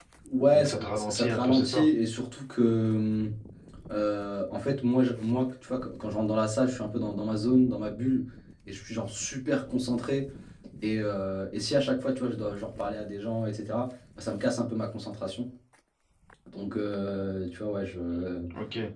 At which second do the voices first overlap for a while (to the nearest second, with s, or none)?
1 s